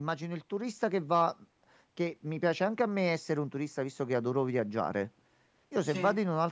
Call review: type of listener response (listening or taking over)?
listening